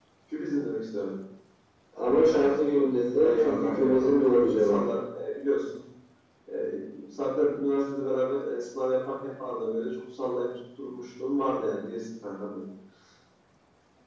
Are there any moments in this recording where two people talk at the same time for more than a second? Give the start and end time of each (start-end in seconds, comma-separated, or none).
3.2-4.8